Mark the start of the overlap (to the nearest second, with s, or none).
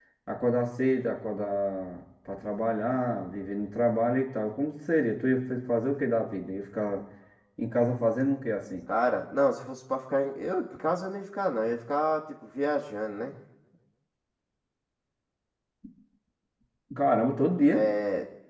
none